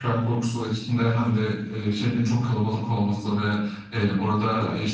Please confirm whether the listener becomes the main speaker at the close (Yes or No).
No